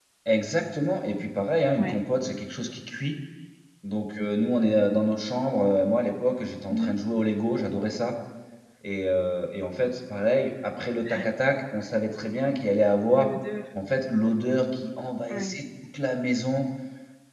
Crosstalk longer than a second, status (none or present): none